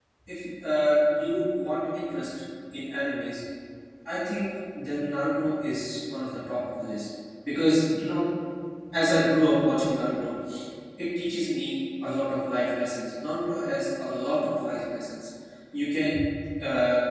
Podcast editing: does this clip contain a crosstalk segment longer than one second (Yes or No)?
No